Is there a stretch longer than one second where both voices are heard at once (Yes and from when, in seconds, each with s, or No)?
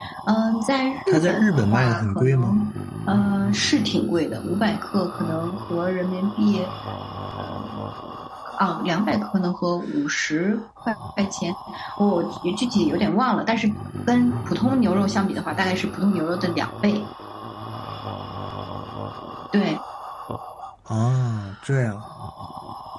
Yes, from 1.1 s